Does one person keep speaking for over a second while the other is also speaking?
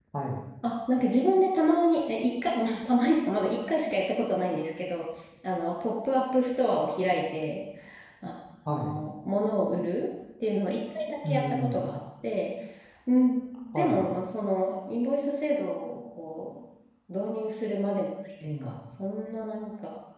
No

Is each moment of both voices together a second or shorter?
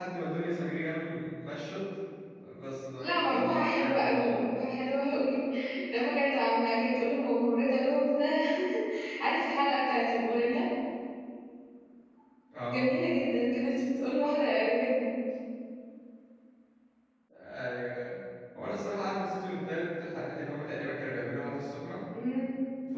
No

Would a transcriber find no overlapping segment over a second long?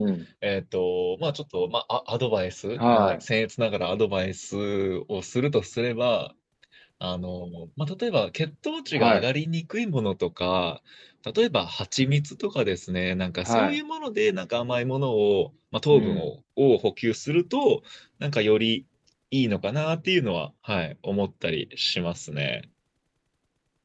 Yes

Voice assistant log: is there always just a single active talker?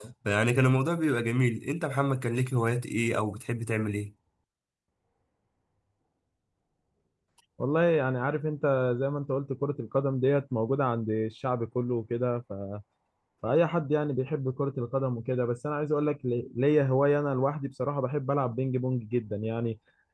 Yes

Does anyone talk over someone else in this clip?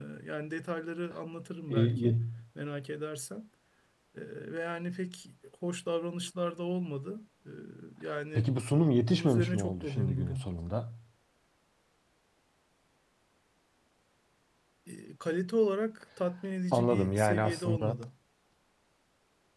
Yes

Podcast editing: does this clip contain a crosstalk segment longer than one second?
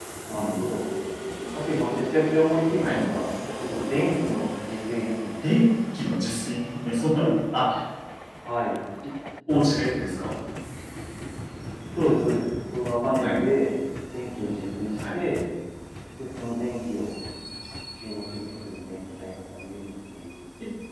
No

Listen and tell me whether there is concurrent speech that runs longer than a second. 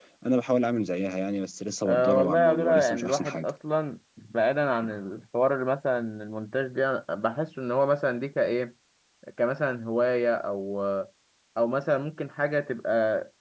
Yes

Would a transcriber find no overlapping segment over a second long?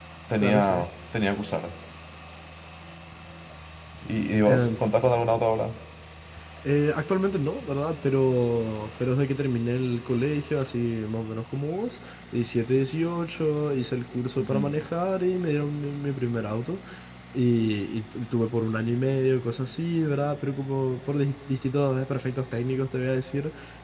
Yes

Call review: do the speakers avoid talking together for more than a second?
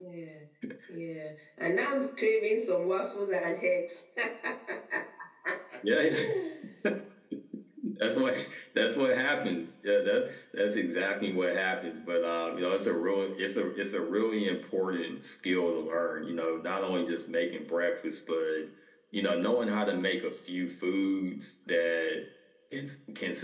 Yes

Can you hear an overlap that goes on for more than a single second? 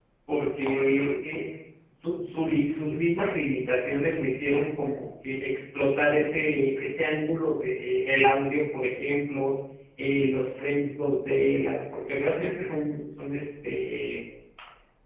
No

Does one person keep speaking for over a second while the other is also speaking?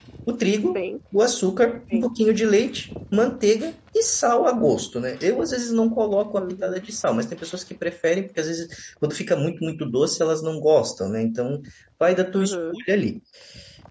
No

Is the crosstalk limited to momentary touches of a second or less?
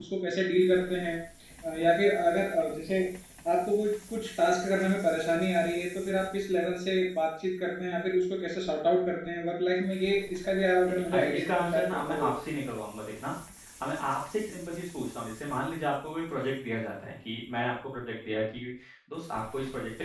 No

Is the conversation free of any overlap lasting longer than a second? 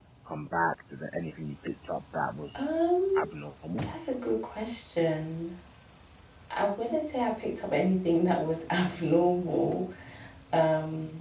Yes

